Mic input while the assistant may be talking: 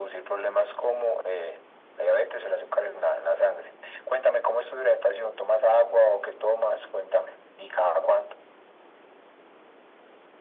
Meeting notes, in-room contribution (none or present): none